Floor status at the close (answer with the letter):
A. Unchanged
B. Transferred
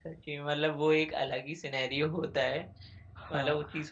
A